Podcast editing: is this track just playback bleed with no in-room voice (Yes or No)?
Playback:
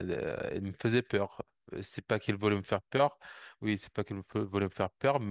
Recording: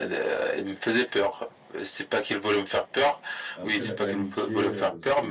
No